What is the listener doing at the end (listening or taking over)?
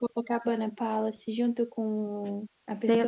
taking over